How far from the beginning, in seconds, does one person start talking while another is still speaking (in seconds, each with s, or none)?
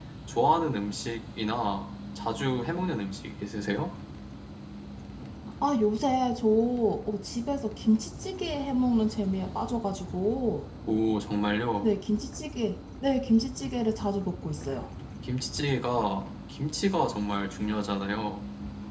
none